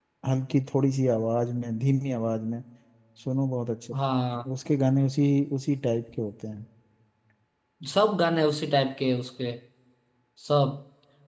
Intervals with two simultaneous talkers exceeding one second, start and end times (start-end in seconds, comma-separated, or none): none